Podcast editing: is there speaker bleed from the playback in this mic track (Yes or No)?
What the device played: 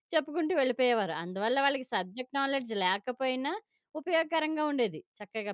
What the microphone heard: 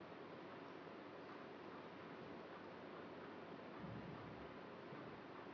No